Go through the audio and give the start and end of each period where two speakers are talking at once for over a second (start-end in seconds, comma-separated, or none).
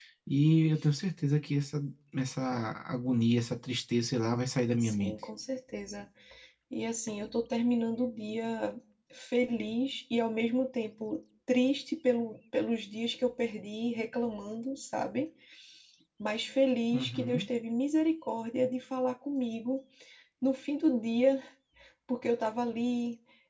none